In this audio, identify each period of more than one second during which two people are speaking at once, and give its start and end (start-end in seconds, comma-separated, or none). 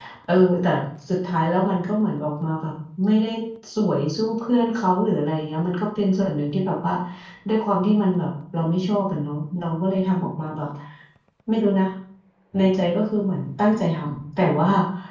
none